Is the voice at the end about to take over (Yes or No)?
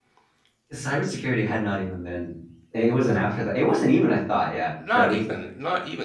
Yes